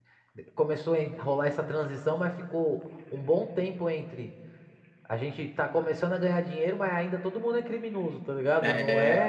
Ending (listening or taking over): listening